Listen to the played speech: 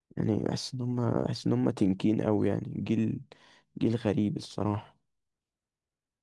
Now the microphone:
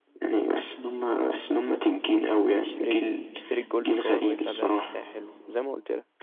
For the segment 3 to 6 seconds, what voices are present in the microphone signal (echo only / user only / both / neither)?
both